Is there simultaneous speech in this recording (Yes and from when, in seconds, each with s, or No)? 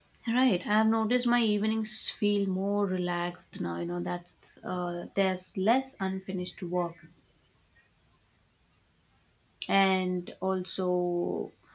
No